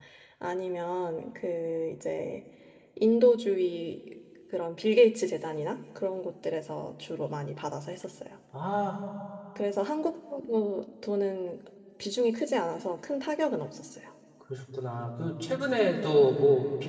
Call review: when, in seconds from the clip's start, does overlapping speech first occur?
none

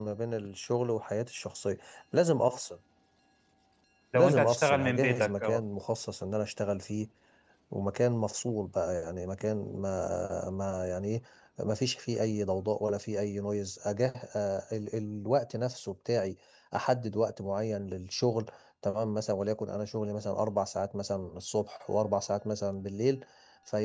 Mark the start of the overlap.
4.1 s

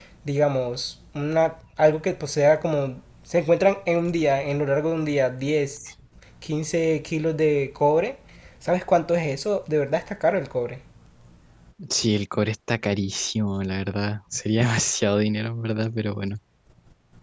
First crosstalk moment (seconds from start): none

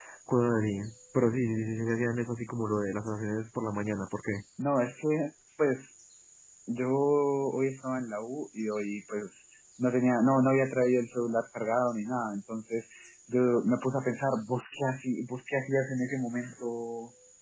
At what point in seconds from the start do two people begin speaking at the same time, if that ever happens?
none

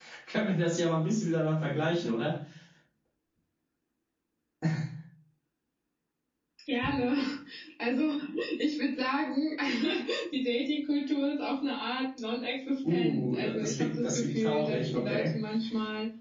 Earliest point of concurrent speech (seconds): 12.8 s

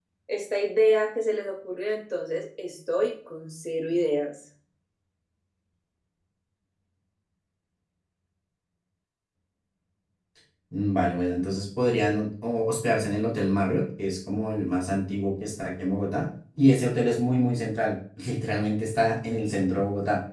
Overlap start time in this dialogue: none

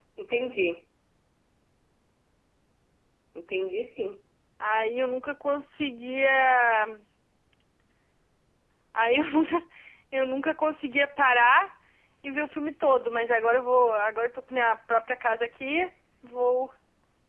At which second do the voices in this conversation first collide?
none

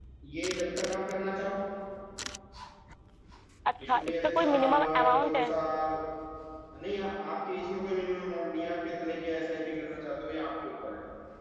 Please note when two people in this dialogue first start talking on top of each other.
3.8 s

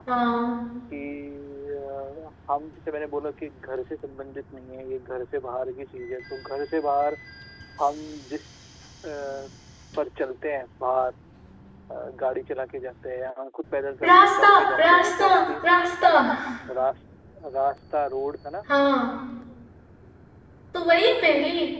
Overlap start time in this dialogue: 14.0 s

